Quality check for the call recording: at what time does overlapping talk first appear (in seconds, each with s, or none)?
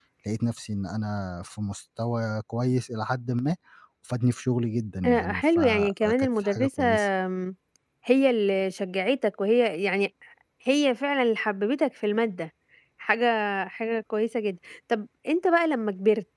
5.0 s